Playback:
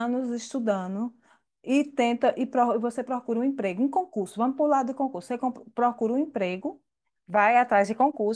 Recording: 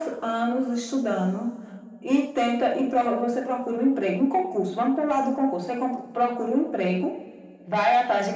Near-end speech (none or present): none